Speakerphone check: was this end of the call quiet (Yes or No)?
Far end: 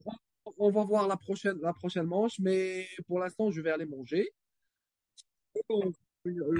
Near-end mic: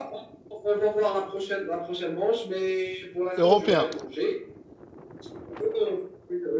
No